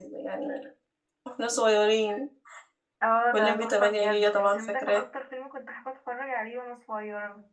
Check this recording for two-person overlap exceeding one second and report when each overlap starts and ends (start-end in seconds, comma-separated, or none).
3.3-5.0